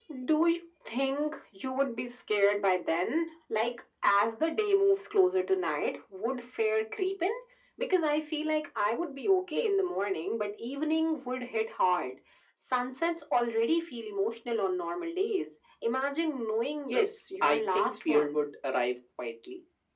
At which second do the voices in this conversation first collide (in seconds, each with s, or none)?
16.9 s